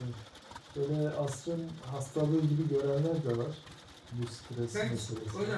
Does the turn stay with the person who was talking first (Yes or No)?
No